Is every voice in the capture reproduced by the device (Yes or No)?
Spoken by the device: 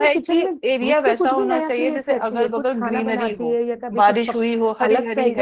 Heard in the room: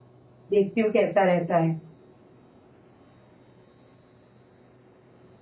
No